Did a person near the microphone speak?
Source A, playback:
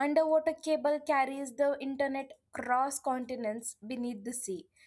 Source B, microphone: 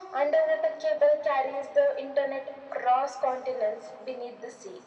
No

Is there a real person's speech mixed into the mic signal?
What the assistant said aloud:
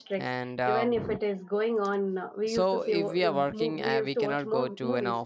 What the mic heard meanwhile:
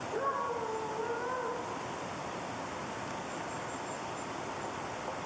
No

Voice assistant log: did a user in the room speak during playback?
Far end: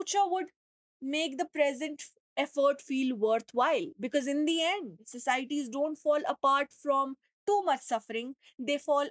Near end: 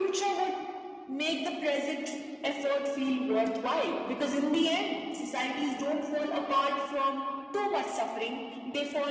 No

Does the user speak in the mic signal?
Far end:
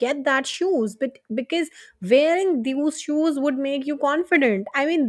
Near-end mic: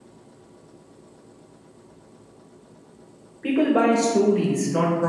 Yes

